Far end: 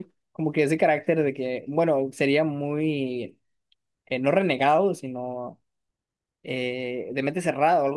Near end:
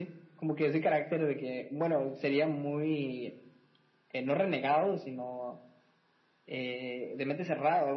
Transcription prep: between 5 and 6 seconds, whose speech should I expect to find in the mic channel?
echo only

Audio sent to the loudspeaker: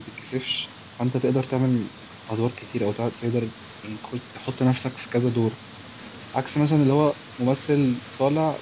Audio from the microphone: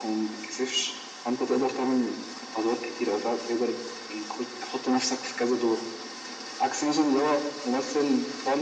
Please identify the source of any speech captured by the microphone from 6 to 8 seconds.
echo only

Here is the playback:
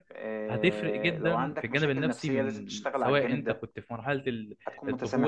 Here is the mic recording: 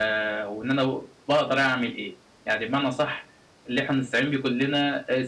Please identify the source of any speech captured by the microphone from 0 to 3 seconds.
user only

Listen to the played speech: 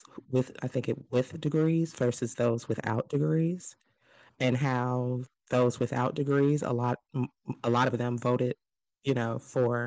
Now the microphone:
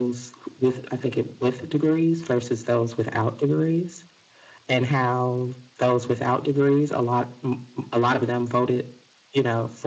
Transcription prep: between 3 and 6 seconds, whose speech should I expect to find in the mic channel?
echo only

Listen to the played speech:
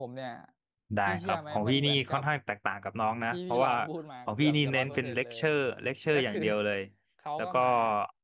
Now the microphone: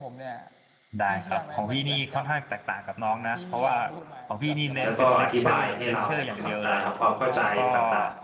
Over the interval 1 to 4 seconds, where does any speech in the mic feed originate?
echo only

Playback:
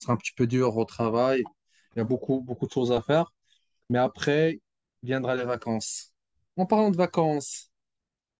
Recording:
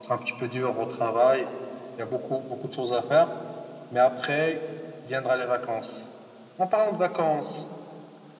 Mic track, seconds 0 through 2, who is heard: echo only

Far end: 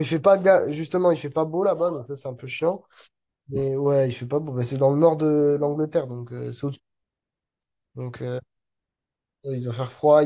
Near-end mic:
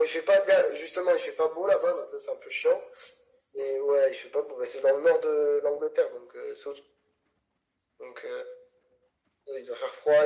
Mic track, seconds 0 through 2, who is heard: echo only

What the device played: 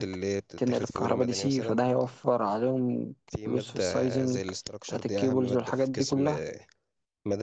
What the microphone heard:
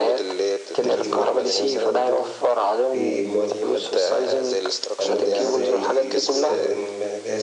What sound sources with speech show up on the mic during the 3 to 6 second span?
both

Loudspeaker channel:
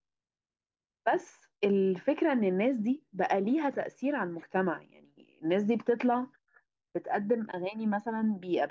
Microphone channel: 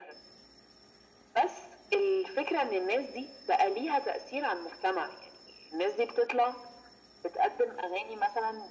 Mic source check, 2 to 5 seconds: echo only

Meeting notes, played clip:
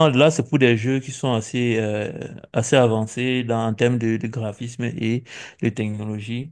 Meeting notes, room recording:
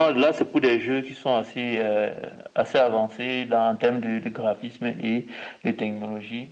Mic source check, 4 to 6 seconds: echo only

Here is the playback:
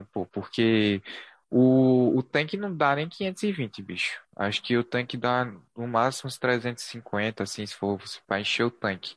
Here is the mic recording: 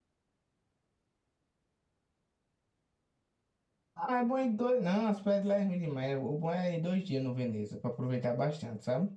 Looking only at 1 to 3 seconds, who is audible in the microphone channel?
neither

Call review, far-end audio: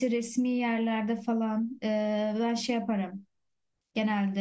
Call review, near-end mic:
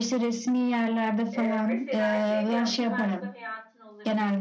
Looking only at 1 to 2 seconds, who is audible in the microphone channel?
both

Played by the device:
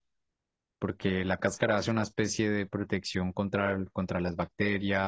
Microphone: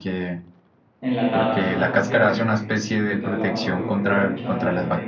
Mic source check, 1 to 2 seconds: both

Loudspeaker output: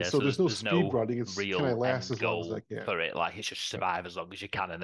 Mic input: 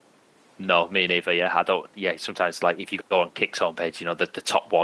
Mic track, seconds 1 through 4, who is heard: user only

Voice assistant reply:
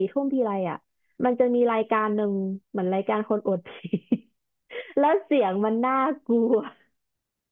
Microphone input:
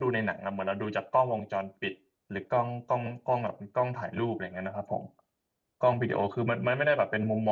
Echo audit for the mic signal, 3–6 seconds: user only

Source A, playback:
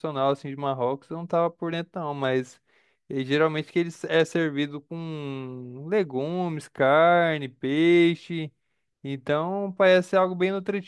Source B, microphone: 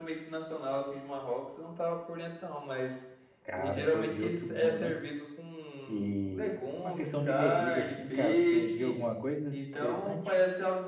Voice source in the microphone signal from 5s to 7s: both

